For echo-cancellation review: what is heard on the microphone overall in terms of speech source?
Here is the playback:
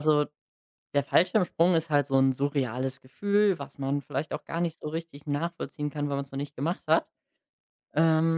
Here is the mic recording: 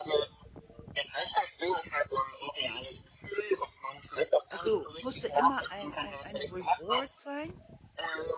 both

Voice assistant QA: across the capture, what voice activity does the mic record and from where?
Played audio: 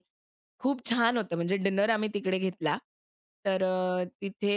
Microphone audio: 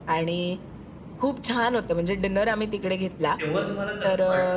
both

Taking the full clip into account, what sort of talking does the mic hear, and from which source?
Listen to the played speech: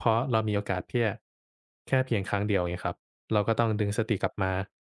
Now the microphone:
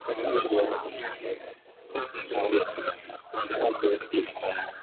echo only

